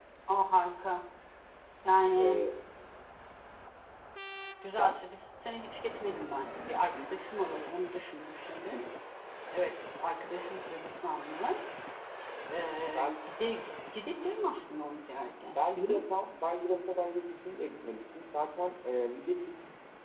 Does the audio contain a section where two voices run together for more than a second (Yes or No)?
No